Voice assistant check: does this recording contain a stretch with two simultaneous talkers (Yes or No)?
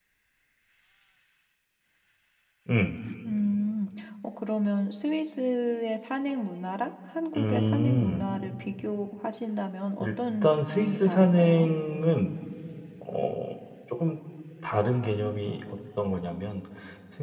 Yes